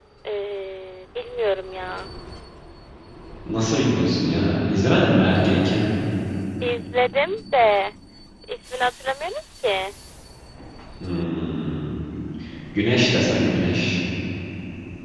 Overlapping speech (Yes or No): No